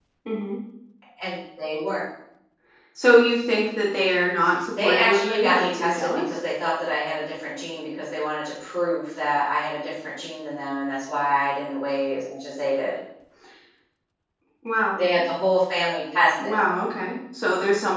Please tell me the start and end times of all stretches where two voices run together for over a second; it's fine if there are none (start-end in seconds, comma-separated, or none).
4.8-6.2